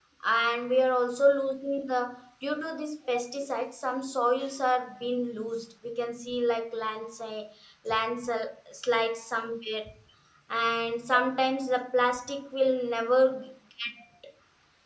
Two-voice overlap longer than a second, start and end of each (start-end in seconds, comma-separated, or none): none